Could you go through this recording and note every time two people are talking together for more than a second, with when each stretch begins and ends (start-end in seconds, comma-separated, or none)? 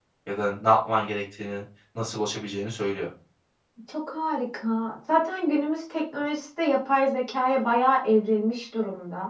none